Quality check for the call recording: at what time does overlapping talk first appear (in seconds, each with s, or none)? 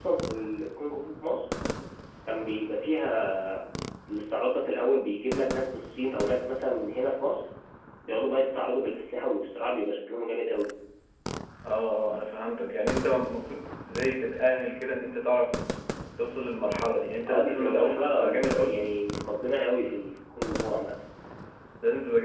17.3 s